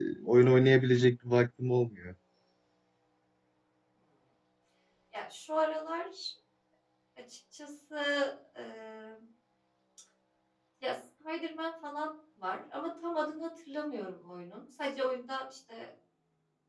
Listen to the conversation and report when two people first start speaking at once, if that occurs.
none

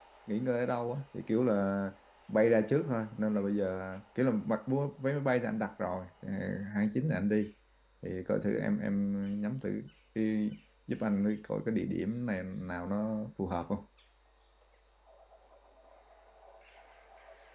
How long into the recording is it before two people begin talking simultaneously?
none

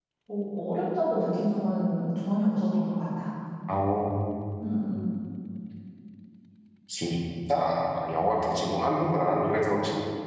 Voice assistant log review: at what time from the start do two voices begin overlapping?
none

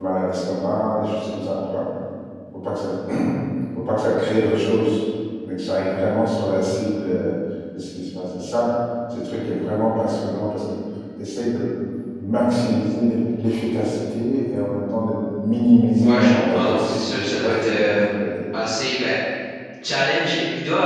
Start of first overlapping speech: 16.0 s

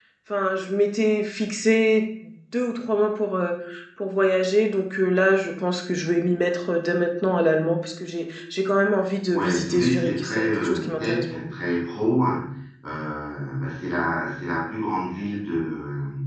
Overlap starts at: 9.3 s

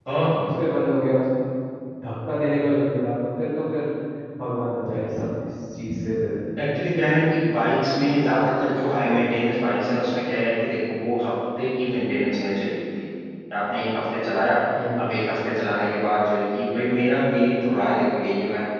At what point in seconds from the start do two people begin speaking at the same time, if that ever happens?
none

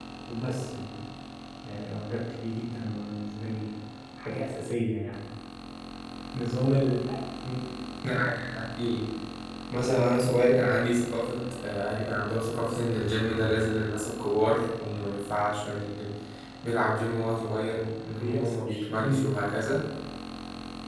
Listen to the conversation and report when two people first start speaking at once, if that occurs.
18.1 s

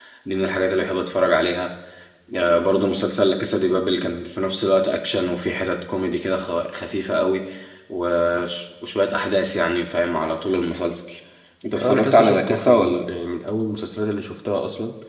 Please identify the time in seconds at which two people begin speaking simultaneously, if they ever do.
11.8 s

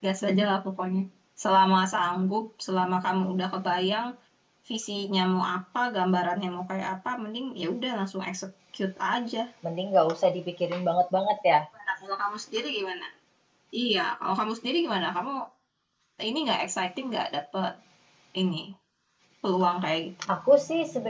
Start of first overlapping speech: none

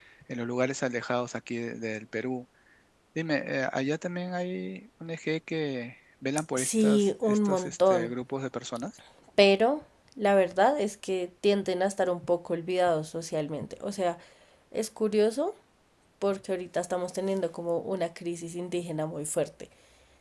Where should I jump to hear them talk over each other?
6.5 s

